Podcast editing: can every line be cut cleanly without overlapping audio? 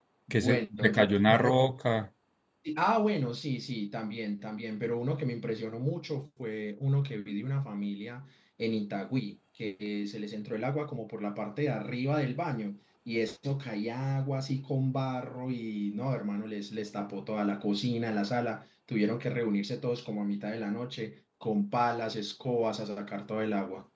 No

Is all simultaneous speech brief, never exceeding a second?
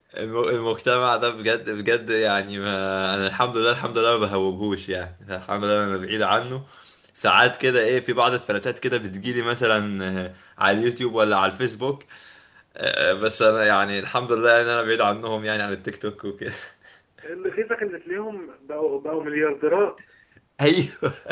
Yes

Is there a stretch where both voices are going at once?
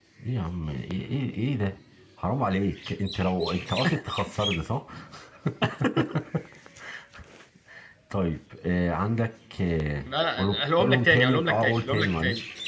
Yes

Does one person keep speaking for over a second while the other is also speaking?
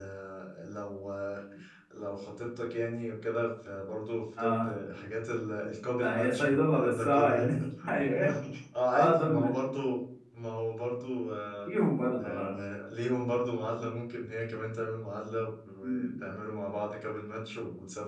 Yes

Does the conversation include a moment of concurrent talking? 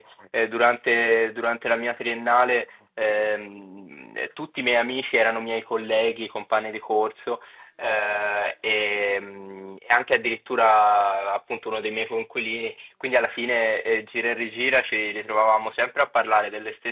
No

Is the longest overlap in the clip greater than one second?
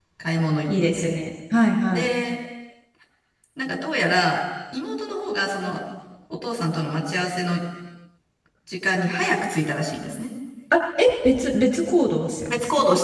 No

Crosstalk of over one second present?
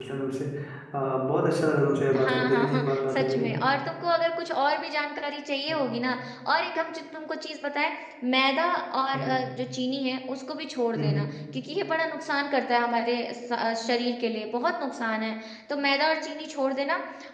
Yes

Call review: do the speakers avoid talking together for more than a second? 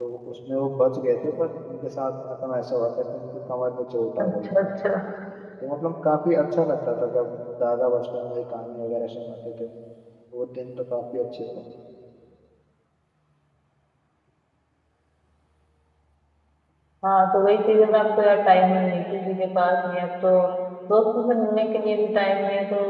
Yes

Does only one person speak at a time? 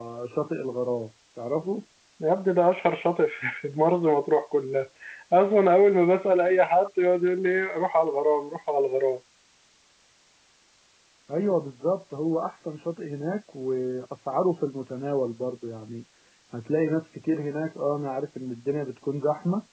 Yes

